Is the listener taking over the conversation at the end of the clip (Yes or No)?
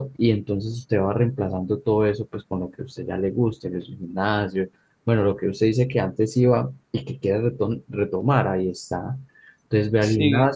No